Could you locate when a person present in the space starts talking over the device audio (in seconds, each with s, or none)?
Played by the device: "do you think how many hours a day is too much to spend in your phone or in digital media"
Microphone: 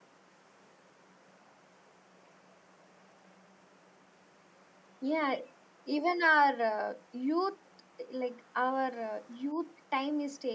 5.0 s